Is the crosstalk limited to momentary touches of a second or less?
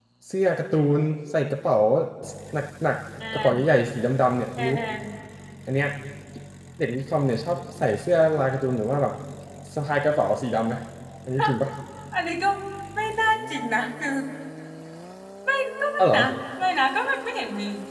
Yes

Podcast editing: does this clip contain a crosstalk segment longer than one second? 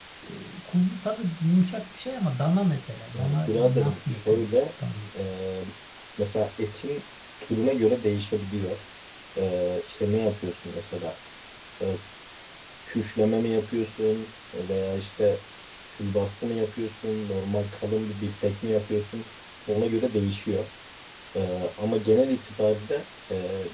Yes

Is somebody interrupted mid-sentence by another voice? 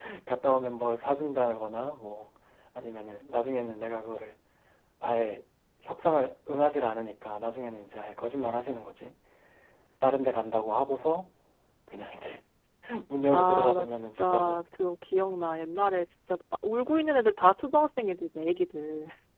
Yes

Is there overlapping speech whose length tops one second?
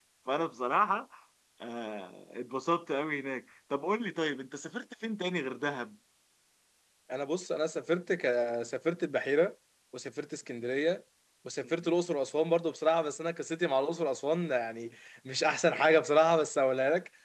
No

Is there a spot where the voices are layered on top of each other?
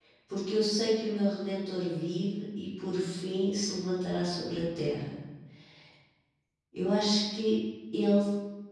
No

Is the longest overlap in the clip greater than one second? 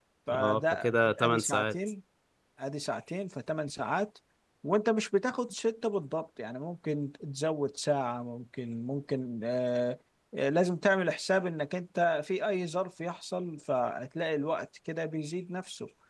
Yes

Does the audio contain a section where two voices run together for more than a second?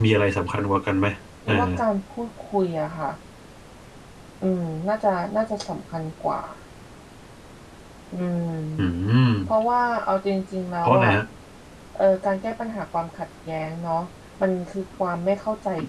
No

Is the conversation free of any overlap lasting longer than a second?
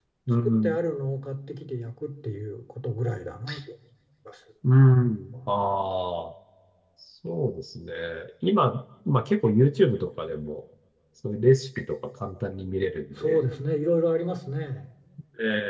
Yes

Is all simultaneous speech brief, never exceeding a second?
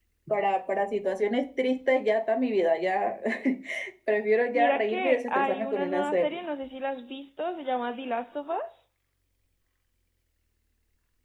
No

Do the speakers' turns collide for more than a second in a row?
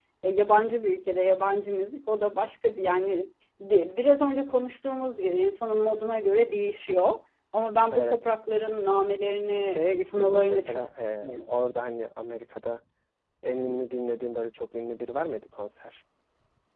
Yes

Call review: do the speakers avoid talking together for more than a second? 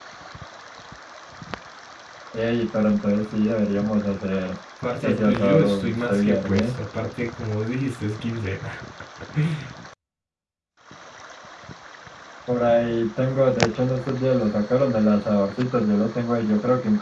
No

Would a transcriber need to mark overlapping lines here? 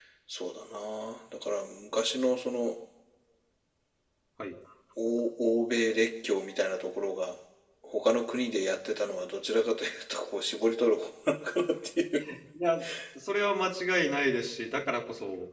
No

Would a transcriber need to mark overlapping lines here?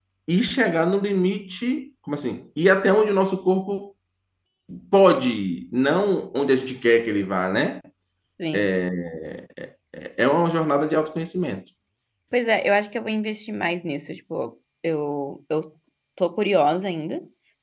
No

